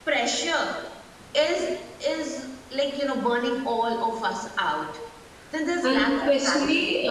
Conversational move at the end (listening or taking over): taking over